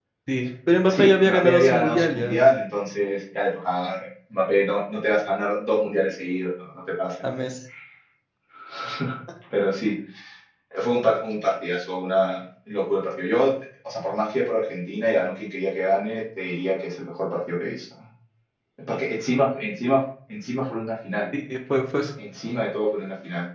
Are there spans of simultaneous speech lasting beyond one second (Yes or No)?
Yes